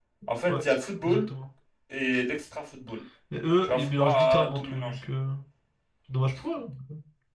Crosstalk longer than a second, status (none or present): present